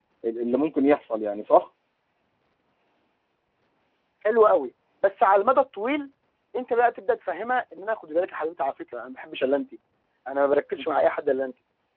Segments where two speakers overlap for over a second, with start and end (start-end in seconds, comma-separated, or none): none